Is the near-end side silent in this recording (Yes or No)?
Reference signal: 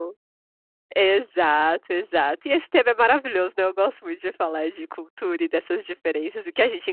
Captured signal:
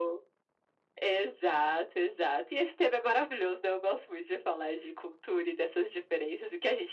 Yes